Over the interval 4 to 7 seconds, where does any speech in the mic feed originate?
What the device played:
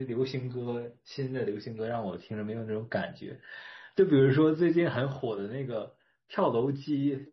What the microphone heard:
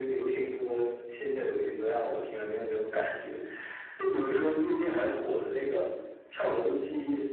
echo only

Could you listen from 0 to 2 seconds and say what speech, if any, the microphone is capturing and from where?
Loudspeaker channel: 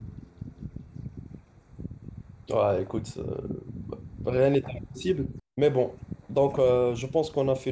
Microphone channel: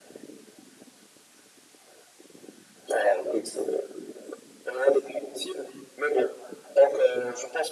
neither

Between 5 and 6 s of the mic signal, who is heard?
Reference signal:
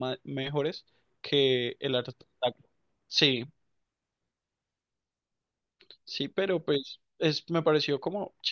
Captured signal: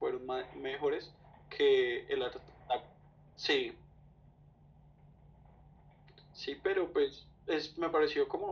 neither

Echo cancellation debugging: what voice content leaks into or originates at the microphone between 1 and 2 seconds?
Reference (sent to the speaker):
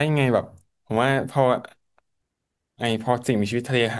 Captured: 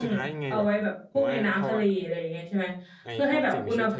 both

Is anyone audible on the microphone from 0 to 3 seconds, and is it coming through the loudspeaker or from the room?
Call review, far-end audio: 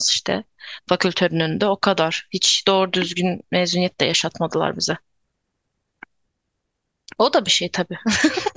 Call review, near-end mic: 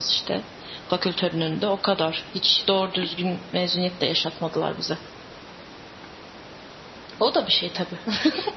echo only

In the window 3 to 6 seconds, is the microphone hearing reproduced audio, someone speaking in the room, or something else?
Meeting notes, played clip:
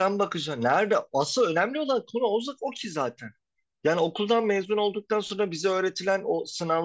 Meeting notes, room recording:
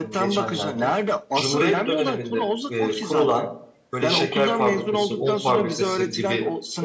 both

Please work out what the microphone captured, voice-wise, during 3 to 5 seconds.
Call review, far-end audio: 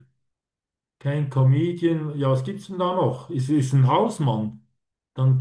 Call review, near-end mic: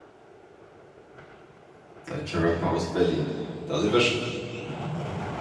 user only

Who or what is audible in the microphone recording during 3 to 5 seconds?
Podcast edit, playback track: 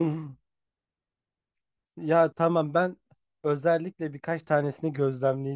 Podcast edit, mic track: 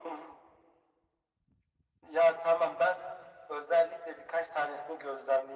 echo only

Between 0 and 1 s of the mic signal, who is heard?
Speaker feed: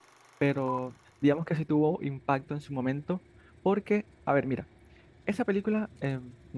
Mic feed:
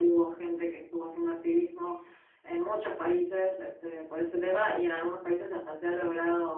user only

